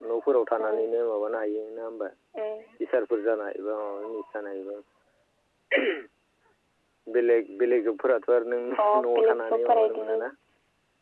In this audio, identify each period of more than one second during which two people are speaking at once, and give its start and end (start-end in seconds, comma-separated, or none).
8.8-10.2